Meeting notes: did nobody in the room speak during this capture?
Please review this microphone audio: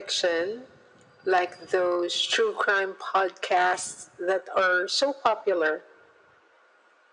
Yes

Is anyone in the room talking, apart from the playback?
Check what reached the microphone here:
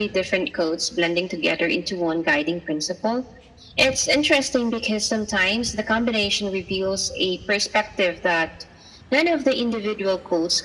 No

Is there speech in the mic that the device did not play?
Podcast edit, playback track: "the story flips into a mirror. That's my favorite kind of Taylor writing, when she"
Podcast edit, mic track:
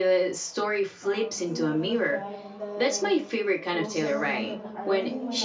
Yes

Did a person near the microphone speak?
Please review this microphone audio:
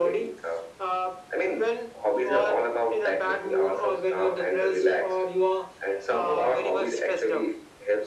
No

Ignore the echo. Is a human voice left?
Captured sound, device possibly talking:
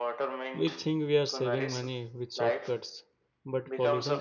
Yes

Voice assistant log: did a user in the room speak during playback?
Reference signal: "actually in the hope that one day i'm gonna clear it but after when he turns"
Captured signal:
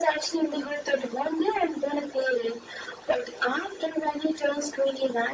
No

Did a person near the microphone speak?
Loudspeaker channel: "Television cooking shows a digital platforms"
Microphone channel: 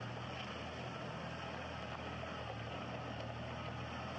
No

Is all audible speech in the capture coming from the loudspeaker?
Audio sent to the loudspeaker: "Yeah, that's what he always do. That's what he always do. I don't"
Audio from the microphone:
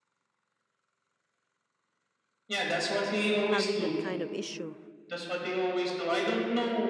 No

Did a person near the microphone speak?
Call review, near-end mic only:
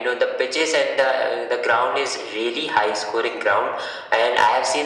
No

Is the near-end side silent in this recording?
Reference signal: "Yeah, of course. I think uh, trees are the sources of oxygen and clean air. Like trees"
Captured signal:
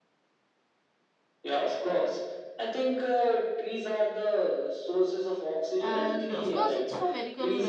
No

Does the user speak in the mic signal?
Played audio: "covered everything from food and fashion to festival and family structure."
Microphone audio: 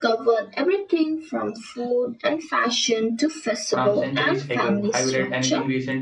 Yes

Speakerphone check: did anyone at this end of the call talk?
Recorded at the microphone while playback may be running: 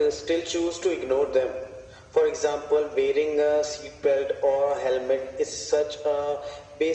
No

